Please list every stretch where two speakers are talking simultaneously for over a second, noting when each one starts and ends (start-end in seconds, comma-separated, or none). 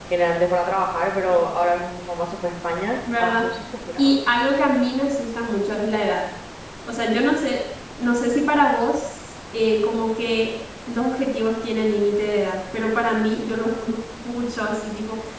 none